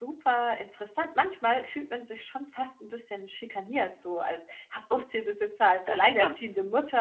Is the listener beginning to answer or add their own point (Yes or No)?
No